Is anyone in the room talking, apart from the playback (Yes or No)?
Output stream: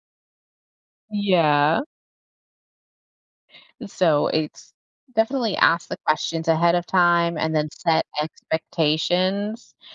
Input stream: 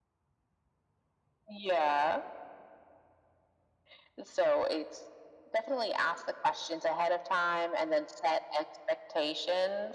No